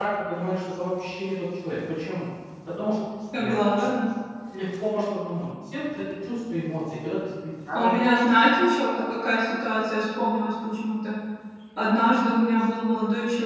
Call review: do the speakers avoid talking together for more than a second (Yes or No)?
Yes